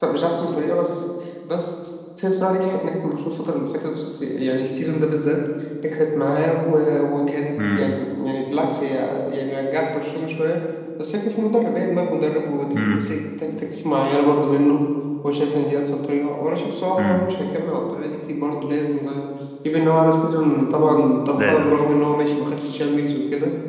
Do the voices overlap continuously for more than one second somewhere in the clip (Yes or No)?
No